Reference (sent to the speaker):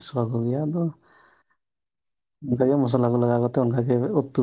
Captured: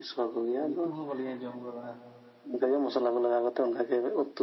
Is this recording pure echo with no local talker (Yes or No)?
No